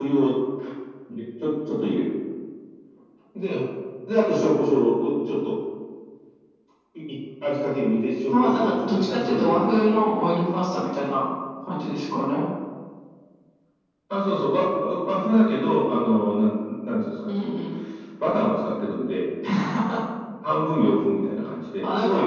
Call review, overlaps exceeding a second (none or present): present